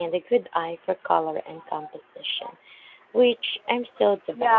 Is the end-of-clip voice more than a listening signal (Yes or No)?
Yes